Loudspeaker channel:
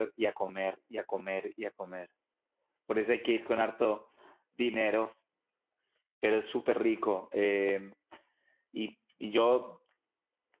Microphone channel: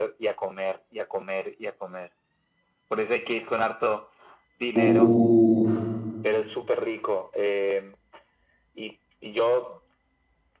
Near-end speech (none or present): present